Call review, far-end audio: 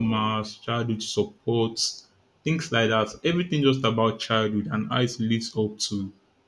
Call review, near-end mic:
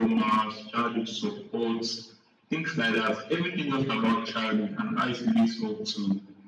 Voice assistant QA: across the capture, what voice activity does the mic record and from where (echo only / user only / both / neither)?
echo only